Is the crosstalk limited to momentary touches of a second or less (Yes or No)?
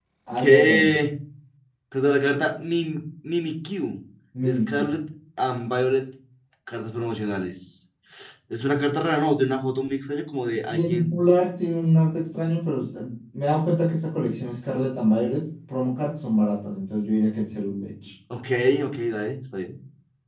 Yes